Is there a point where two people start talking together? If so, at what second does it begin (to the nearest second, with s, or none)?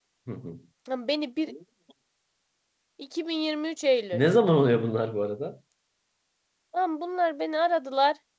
none